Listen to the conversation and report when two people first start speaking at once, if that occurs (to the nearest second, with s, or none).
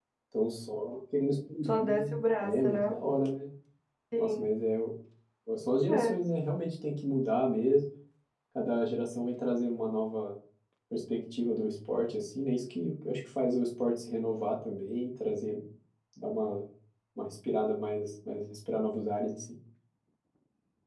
2 s